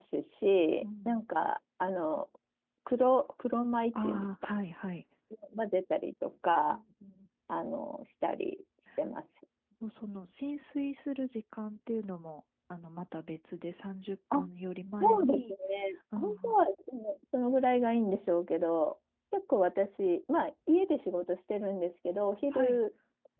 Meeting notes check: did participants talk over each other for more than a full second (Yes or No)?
No